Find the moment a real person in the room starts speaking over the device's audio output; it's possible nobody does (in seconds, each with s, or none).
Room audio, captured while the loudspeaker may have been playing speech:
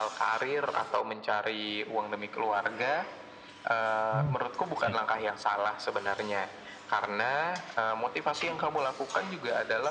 4.1 s